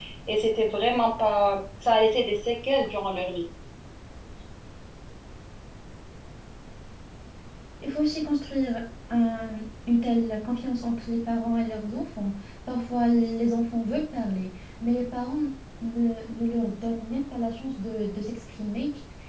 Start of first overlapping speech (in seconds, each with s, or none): none